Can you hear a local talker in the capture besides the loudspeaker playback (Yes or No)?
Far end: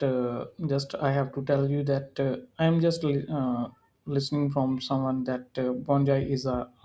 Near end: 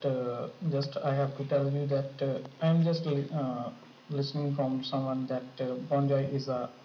No